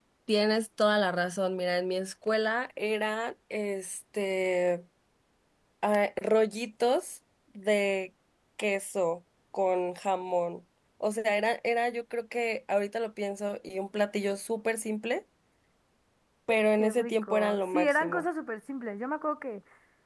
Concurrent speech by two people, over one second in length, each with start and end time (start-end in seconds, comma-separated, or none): 16.8-18.2